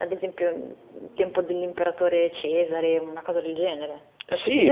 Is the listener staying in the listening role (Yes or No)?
No